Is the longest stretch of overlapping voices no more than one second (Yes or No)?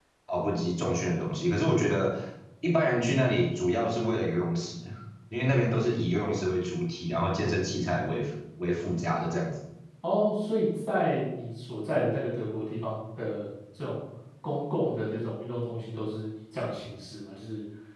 Yes